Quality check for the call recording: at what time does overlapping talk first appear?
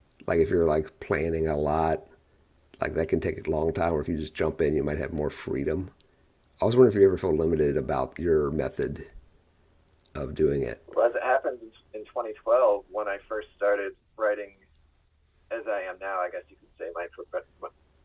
none

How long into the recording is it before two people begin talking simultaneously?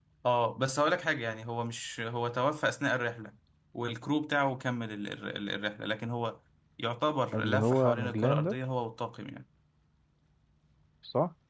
7 s

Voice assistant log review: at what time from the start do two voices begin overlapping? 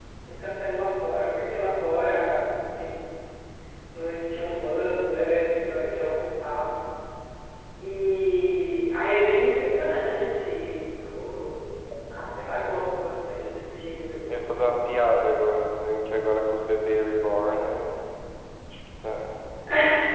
none

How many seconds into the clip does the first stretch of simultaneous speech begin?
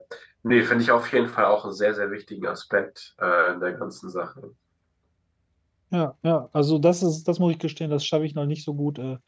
none

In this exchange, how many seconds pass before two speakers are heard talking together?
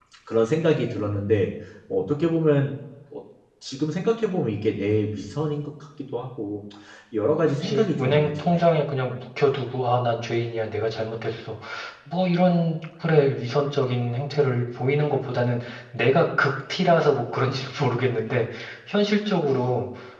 7 s

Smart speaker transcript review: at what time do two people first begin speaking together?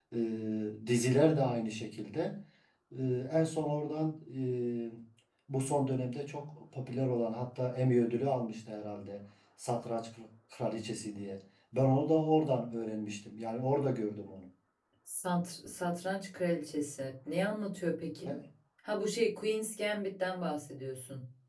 none

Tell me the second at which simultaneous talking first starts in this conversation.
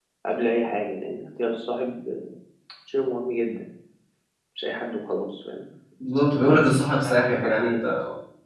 6 s

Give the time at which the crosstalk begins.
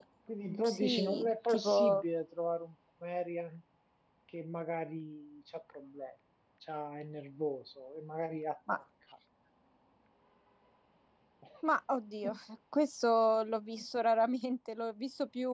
1 s

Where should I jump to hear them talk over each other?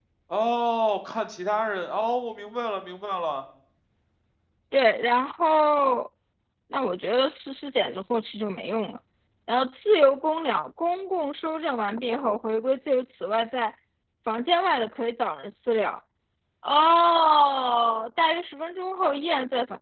none

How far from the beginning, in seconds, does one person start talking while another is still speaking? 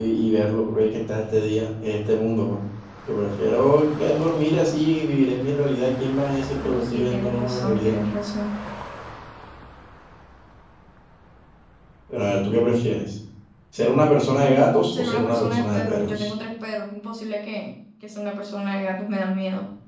7 s

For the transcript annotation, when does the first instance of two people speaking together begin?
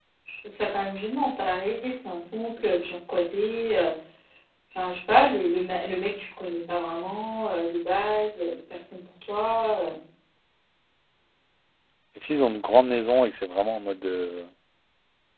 none

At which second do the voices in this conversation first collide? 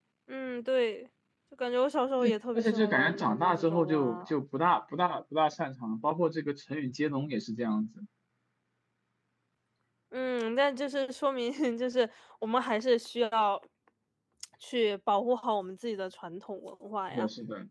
2 s

